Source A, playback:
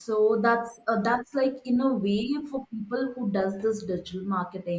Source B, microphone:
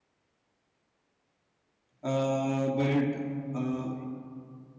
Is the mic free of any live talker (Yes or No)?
No